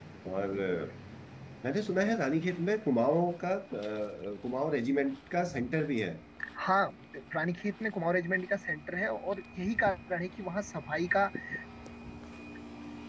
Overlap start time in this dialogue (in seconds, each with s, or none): none